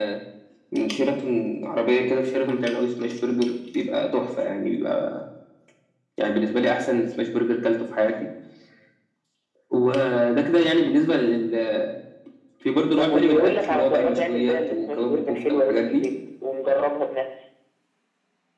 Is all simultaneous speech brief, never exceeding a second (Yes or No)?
No